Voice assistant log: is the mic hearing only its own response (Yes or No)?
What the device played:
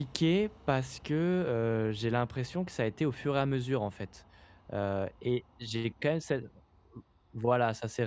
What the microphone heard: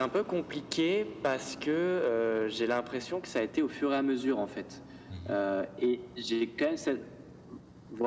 No